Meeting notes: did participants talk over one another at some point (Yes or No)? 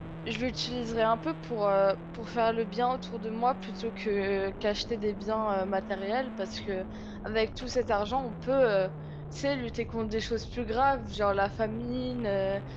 No